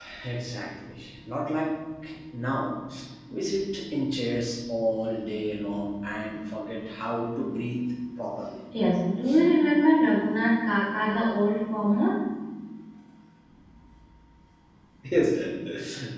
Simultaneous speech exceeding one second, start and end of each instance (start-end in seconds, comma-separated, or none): none